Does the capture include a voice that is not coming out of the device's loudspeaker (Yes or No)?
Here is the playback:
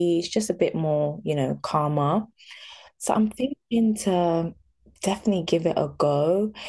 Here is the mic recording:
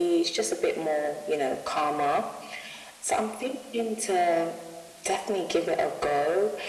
No